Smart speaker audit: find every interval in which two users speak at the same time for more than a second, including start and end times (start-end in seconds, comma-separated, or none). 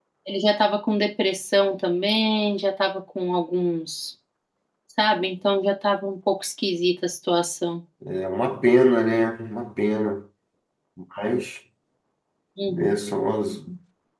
none